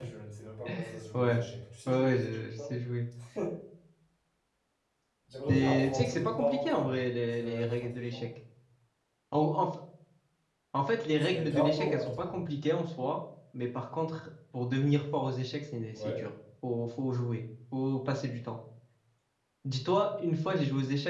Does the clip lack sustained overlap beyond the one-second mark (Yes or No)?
No